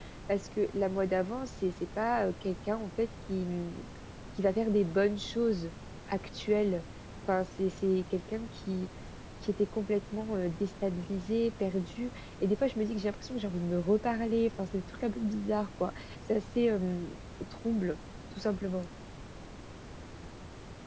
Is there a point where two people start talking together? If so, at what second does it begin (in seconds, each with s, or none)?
none